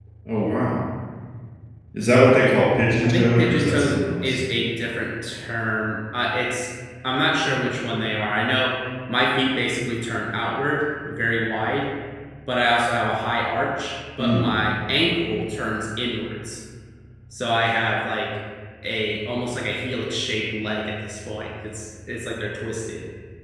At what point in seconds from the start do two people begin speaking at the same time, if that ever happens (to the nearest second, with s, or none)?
3 s